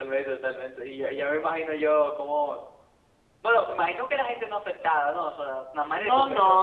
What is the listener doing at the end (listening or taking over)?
taking over